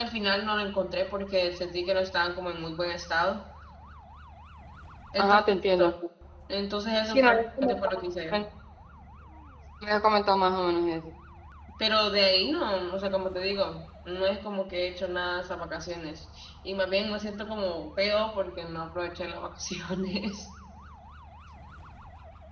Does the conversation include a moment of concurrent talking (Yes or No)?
Yes